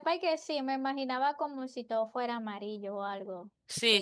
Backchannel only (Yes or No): No